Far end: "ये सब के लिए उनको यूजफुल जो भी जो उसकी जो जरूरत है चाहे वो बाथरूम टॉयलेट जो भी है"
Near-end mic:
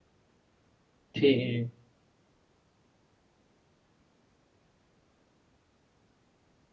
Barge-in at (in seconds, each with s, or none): 1.1 s